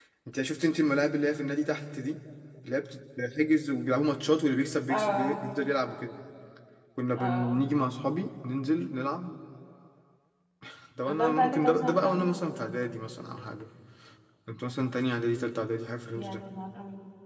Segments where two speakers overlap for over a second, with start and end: 11.1-12.3

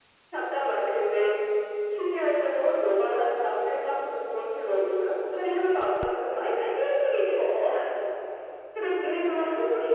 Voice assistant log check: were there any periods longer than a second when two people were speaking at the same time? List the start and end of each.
none

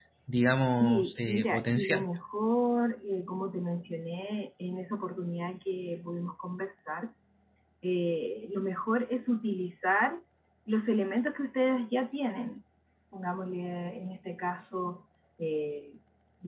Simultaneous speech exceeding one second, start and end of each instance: 0.8-2.0

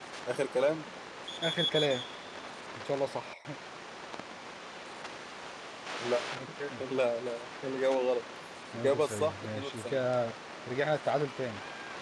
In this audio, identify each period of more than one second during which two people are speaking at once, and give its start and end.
8.8-10.0

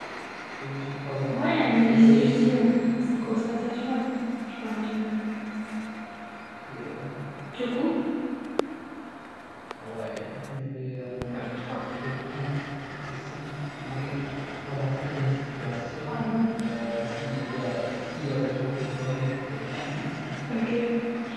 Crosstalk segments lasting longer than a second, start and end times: 1.3-2.8

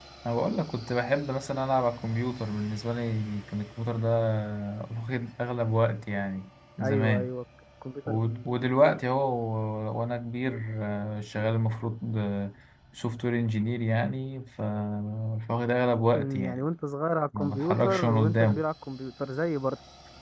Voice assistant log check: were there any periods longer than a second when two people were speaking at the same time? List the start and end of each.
17.4-18.6

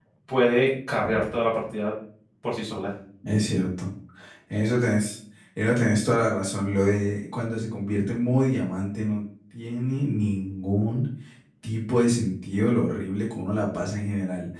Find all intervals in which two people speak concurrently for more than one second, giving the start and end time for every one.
none

